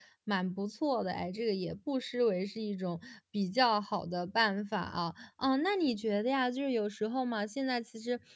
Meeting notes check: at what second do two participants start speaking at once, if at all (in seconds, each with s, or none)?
none